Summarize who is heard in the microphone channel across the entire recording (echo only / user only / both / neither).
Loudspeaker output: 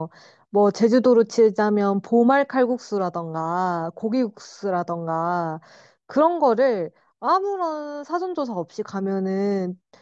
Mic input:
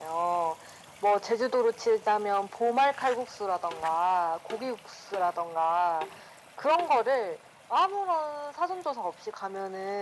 echo only